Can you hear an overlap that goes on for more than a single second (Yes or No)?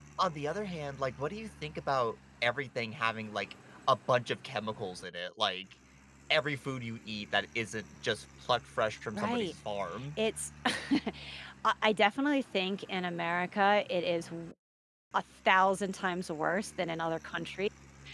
No